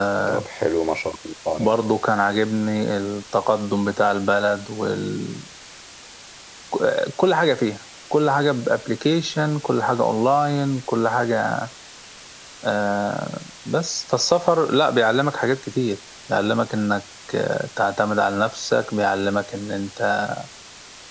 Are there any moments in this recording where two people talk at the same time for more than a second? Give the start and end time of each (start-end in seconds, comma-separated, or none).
none